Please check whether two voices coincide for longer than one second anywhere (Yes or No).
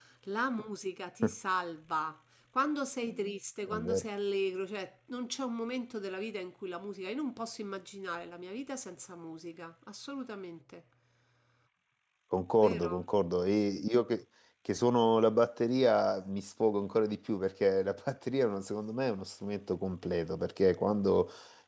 No